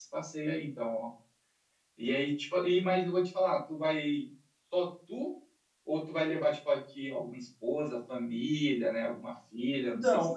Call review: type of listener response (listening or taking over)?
taking over